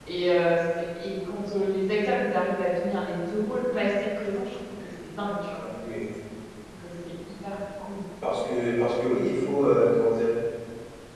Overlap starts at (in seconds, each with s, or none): none